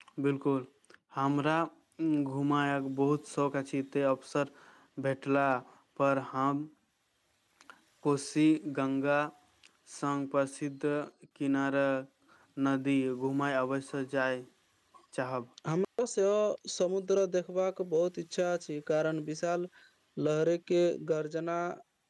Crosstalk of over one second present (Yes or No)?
No